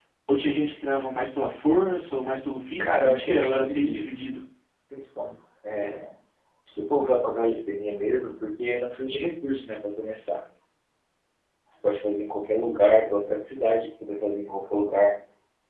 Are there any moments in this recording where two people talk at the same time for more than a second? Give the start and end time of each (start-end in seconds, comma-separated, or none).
2.8-4.1